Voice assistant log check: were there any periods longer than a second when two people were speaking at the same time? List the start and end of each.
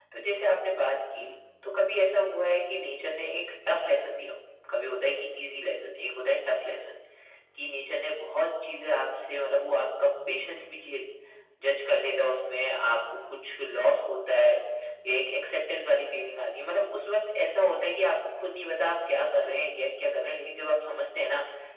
none

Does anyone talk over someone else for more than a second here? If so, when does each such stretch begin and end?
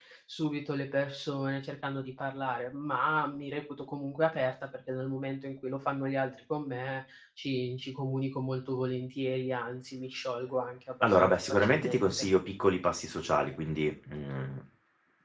11.0-12.3

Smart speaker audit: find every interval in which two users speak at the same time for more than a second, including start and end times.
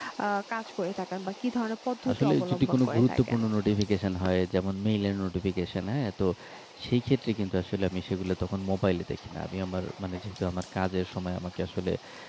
2.1-3.4

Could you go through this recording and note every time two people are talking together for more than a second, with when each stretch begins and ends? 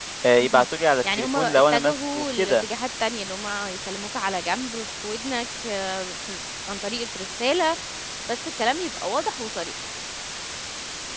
1.2-2.6

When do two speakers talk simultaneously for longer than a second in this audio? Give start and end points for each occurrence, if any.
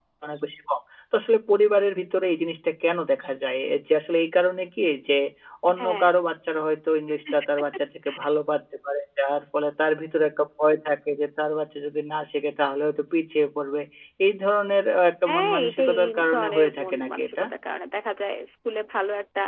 15.3-17.4

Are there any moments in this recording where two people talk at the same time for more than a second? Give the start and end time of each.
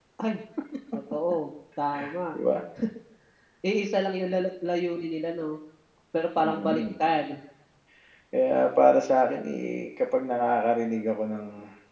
none

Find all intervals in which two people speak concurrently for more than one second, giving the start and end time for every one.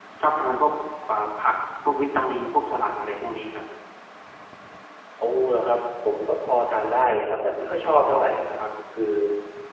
none

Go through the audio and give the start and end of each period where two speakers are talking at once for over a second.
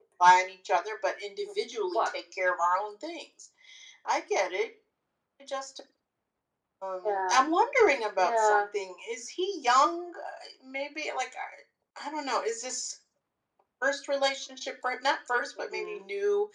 none

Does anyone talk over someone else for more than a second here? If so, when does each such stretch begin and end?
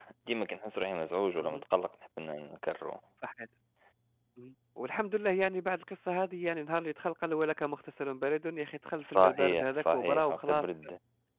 9.1-10.7

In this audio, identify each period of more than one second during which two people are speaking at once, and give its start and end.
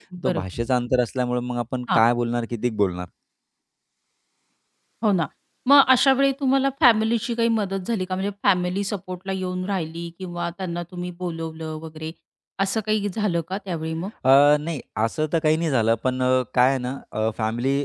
none

